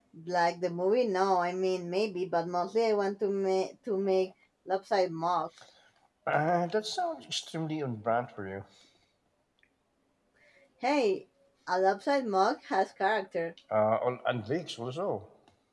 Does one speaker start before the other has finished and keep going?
No

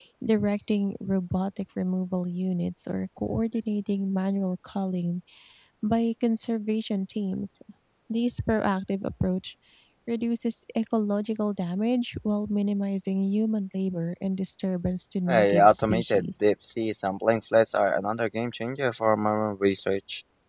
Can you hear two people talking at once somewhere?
Yes, from 15.3 s

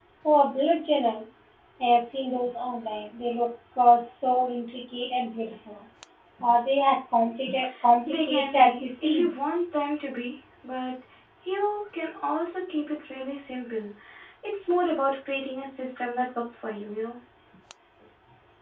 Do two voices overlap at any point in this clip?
Yes, from 8.1 s

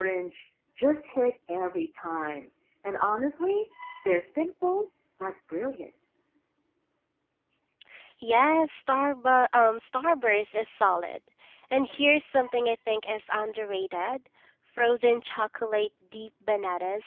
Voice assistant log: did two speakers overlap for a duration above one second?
No

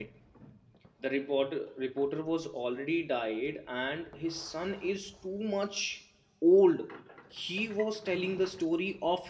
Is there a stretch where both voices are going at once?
No

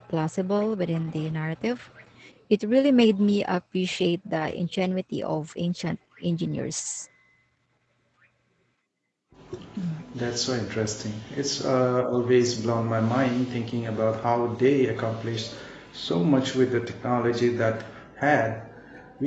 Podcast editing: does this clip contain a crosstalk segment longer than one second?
No

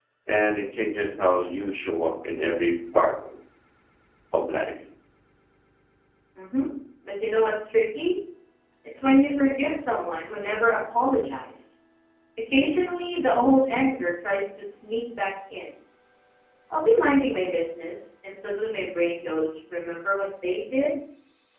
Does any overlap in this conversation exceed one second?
No

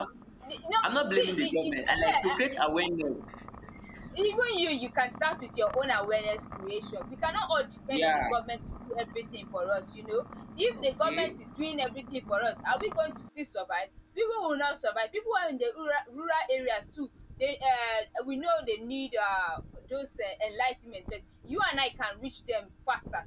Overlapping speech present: Yes, from 0.9 s

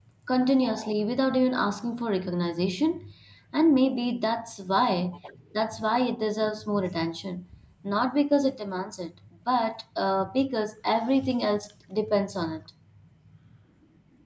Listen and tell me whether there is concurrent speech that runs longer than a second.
No

